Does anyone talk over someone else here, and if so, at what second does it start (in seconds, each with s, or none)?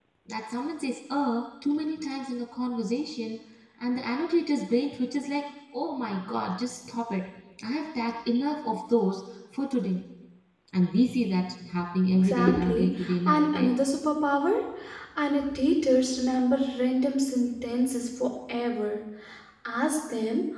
12.2 s